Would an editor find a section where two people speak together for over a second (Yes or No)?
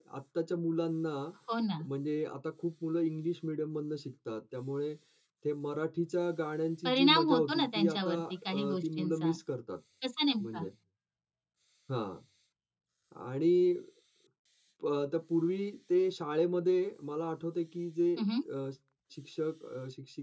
Yes